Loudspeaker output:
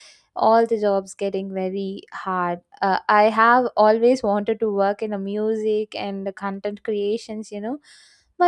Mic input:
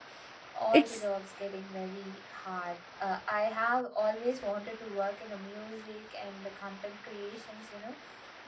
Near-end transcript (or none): it's